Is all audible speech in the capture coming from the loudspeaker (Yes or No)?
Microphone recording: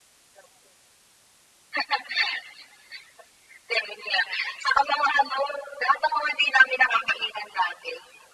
Yes